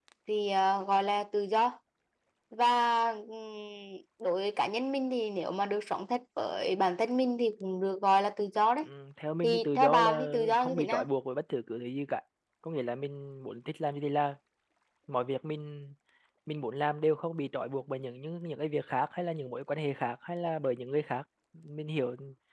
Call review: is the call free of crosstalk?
No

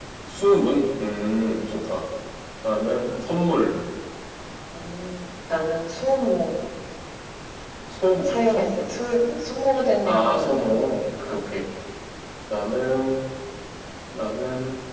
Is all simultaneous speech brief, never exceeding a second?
No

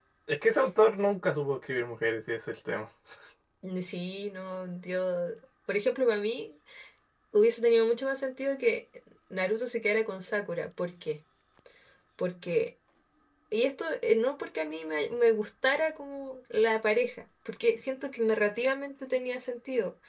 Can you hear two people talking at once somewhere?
No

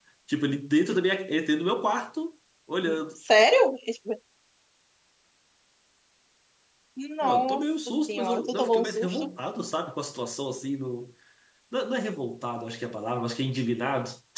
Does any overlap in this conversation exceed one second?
Yes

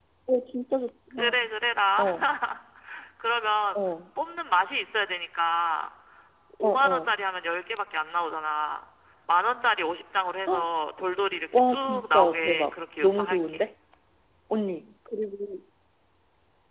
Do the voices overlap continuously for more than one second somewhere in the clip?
Yes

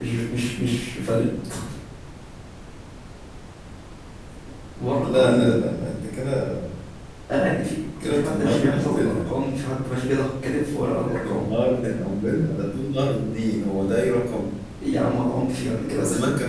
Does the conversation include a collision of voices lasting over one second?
Yes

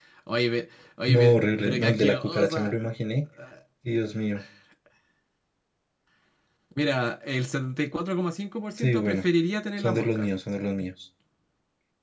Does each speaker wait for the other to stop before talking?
No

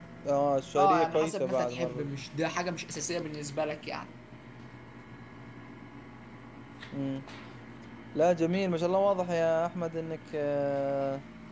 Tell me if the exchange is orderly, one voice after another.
No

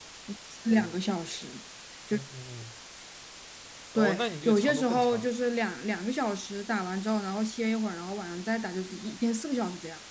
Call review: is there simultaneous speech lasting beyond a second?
Yes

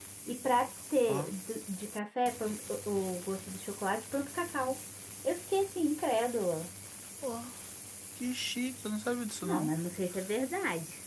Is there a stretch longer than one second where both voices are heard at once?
No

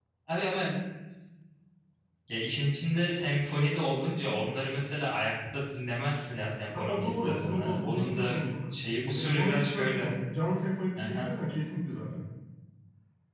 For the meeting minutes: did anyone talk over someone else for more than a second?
Yes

